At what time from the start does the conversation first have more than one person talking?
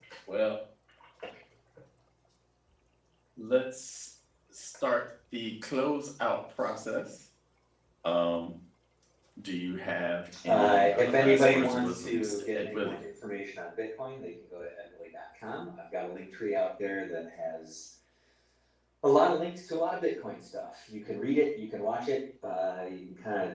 10.5 s

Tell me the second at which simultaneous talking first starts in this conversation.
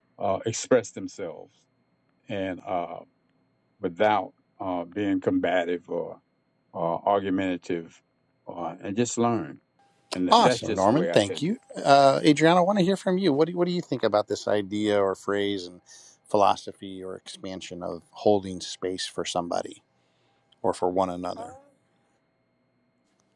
10.3 s

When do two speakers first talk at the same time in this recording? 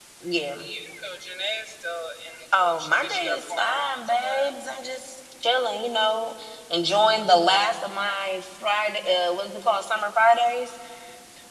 2.5 s

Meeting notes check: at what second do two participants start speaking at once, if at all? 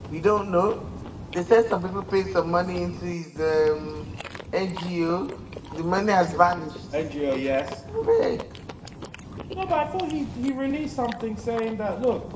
none

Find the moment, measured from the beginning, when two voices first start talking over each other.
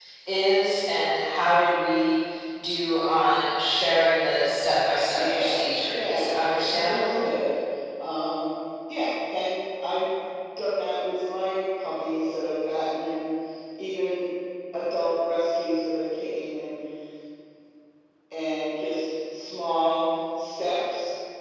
5.1 s

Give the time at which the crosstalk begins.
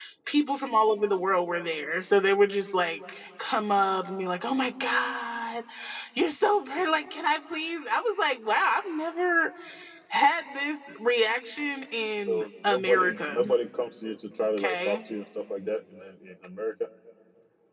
12.2 s

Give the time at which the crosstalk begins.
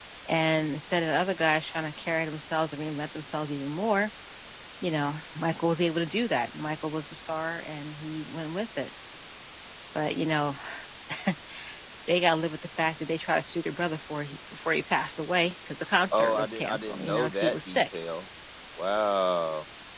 16.1 s

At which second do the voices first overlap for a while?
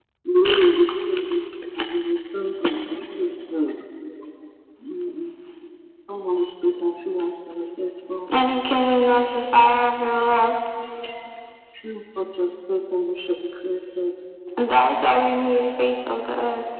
none

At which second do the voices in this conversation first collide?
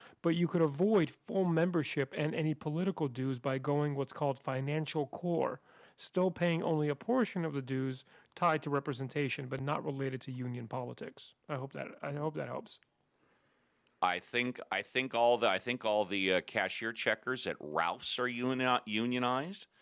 none

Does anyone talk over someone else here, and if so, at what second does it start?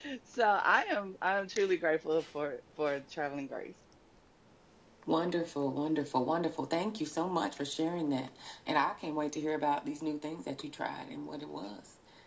none

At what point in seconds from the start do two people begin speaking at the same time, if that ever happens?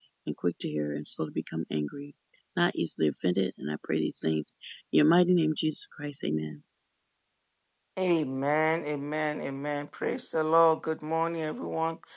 none

